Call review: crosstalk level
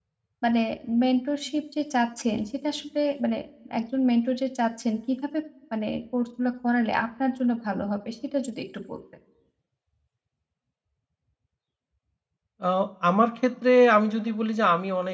none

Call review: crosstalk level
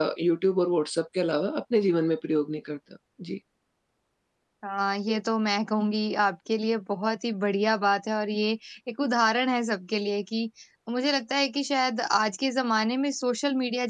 none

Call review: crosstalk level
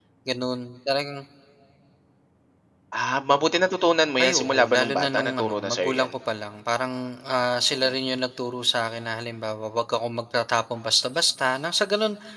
present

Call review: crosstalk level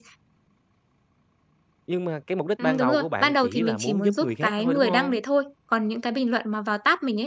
present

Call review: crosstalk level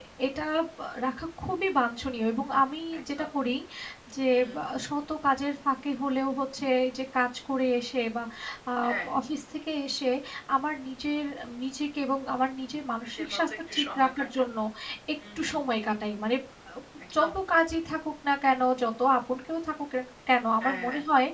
present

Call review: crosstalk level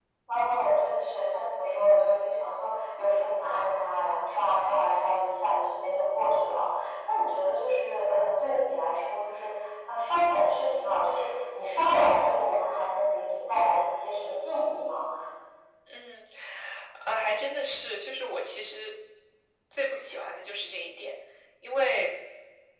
none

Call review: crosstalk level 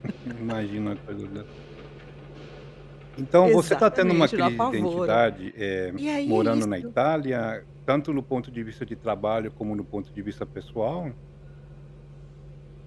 present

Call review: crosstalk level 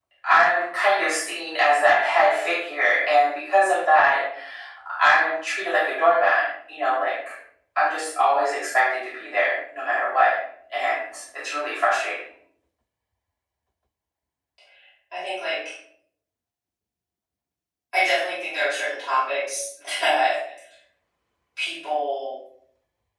none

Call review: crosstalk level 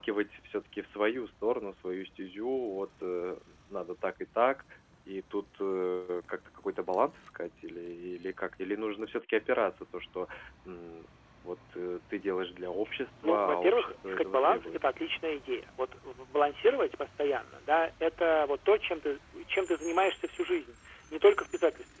present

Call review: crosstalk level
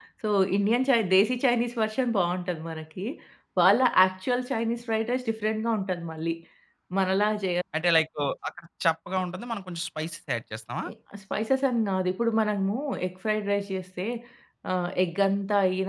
none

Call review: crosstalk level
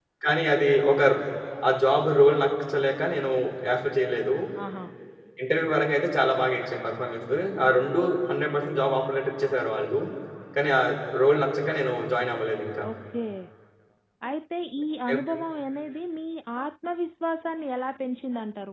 none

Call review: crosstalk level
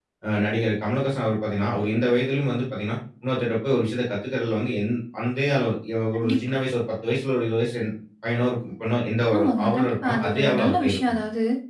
present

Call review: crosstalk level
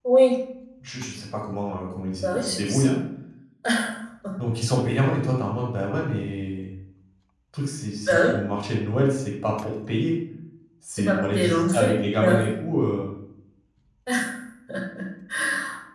present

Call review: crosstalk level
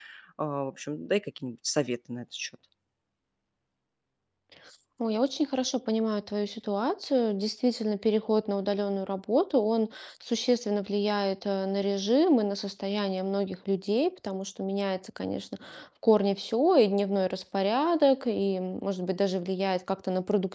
none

